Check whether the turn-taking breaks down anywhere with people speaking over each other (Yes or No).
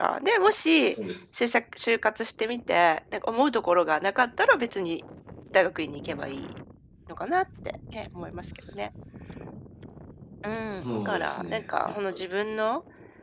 Yes